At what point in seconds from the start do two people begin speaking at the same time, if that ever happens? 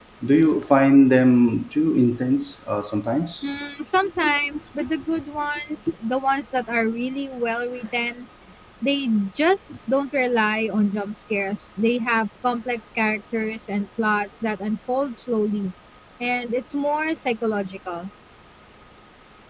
none

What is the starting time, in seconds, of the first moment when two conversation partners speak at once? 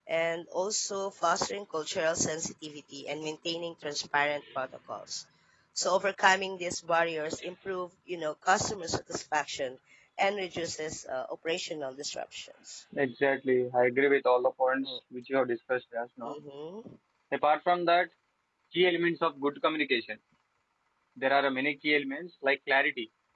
none

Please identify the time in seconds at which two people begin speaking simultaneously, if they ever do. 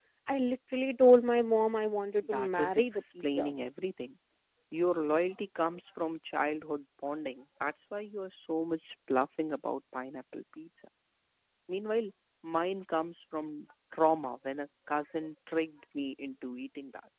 2.2 s

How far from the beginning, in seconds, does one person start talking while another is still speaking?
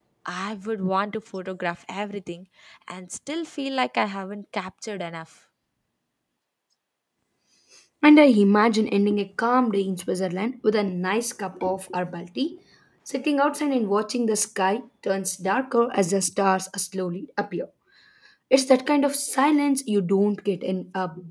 none

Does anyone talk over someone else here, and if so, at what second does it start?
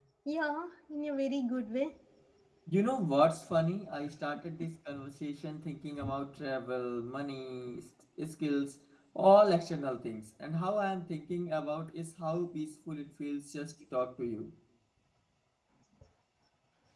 none

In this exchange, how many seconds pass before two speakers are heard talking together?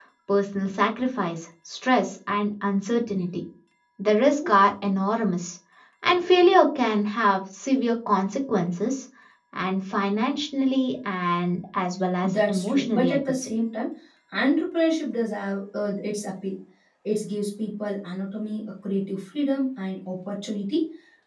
12.2 s

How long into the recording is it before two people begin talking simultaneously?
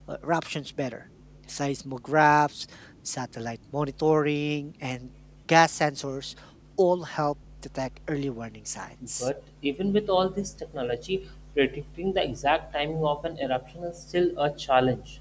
none

